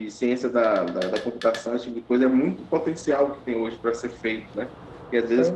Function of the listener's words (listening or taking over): listening